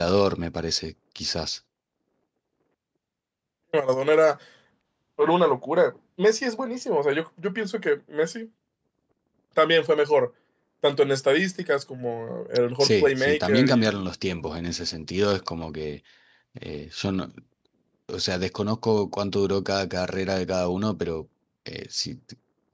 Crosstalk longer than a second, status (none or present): present